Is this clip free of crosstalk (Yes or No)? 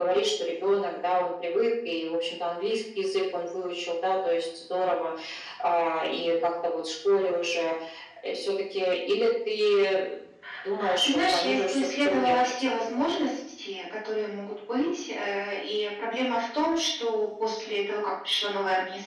No